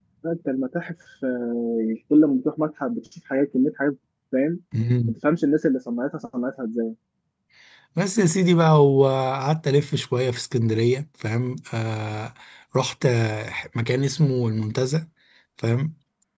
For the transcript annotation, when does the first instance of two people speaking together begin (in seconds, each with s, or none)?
none